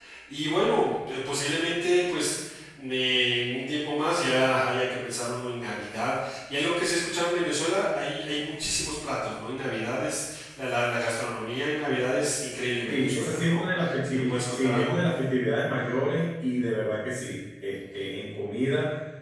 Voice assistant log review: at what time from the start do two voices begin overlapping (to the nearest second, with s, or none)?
13 s